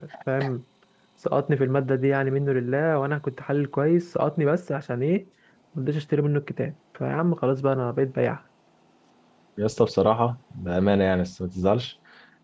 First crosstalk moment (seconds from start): none

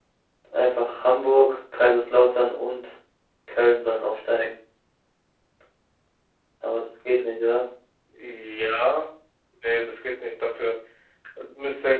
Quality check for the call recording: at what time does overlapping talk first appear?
none

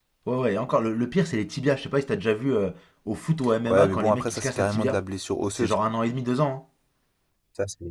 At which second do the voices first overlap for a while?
3.7 s

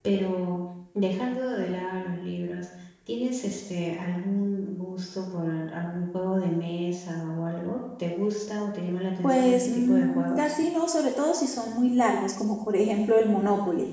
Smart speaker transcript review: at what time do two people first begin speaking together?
9.2 s

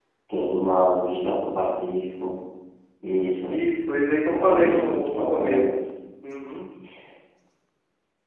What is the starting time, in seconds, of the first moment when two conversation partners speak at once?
4.2 s

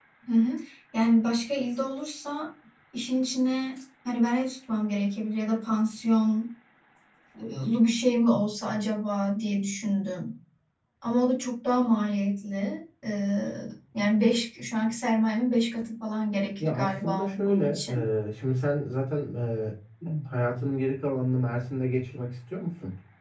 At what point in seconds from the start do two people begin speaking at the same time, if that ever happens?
16.6 s

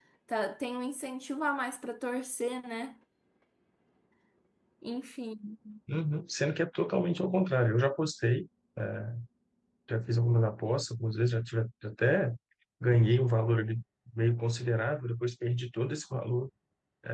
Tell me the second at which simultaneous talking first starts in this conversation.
none

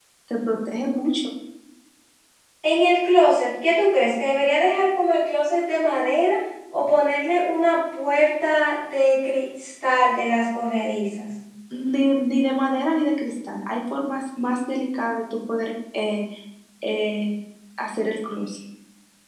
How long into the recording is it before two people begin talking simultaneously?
none

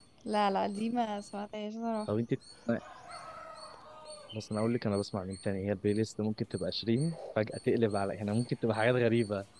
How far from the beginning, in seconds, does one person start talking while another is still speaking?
none

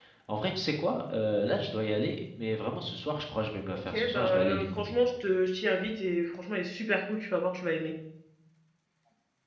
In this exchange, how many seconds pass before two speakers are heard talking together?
3.7 s

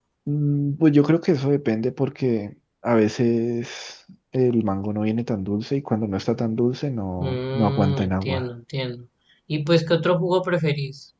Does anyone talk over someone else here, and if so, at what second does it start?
7.2 s

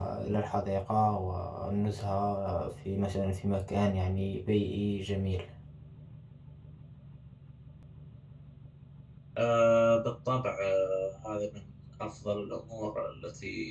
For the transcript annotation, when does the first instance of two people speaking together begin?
none

